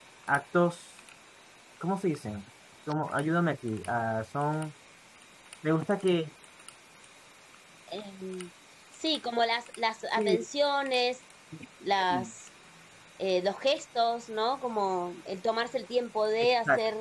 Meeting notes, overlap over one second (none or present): none